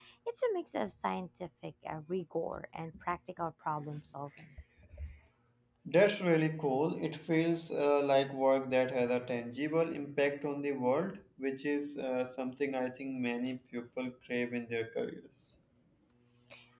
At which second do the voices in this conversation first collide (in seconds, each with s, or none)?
none